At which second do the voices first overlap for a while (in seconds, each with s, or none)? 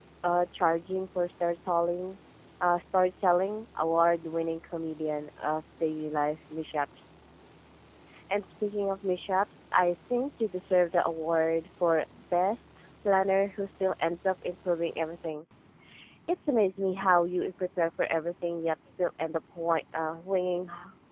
none